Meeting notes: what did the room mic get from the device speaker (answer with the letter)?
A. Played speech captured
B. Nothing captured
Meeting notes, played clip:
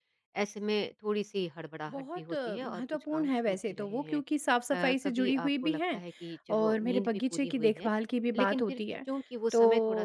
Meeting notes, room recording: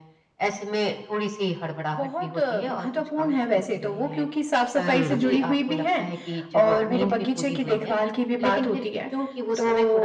A